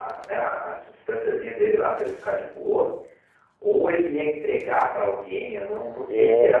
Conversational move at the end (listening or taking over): listening